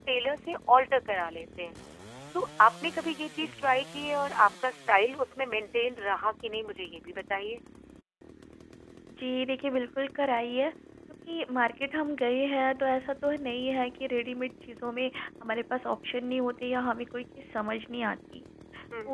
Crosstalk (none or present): none